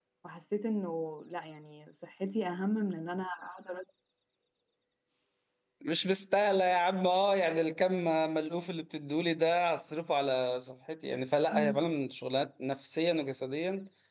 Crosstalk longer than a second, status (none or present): none